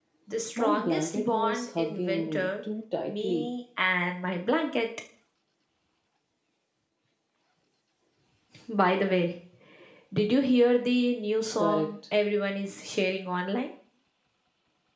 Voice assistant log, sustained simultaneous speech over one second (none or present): present